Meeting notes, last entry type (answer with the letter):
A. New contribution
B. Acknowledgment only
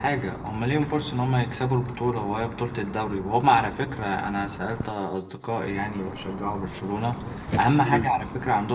B